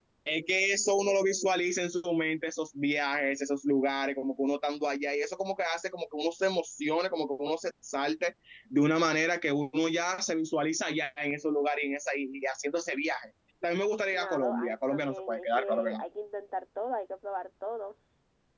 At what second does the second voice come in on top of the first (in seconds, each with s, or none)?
14.1 s